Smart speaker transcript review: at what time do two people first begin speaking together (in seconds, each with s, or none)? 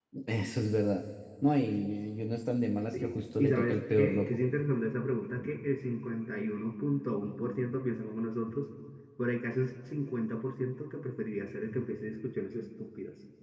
3.0 s